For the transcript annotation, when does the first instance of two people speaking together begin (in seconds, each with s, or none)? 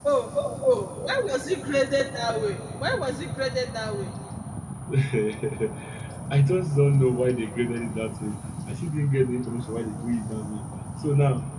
none